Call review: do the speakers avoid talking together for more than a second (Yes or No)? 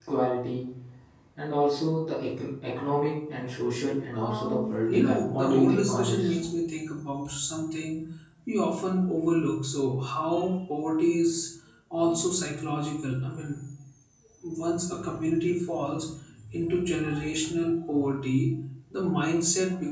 No